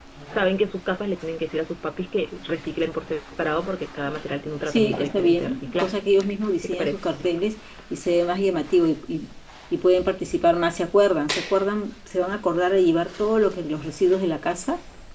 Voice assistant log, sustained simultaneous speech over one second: present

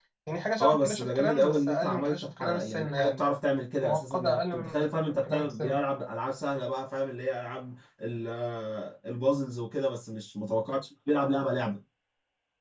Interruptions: present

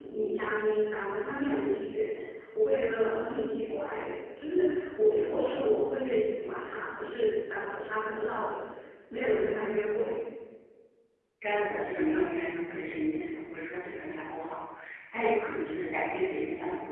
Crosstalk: none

